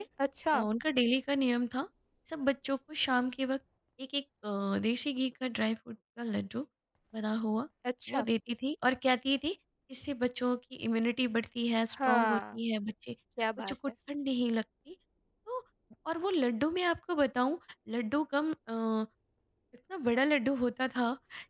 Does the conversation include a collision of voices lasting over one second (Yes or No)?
No